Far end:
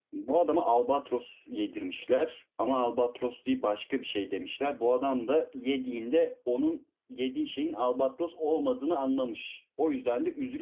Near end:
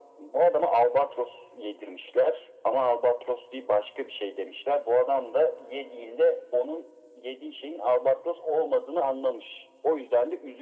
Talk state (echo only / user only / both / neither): echo only